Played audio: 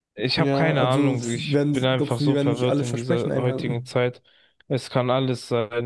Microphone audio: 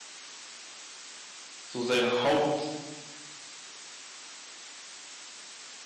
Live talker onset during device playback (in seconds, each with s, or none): 1.6 s